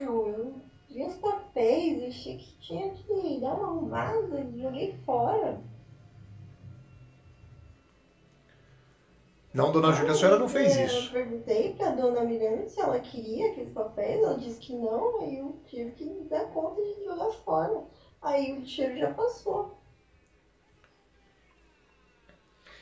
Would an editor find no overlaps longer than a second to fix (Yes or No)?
No